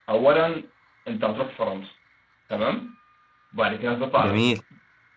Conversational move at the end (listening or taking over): listening